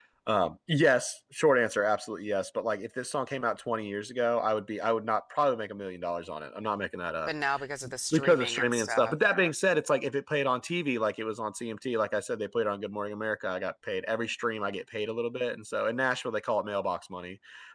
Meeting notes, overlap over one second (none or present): present